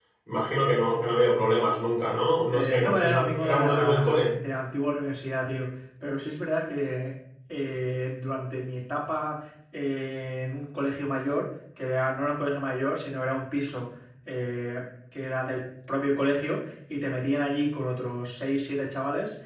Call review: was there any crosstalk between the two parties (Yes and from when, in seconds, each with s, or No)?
Yes, from 2.5 s